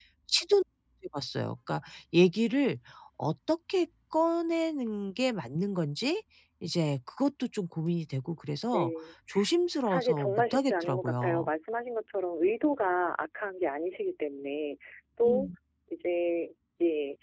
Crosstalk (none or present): present